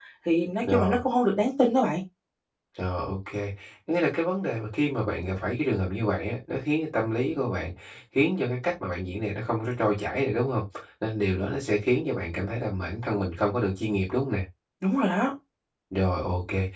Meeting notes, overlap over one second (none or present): none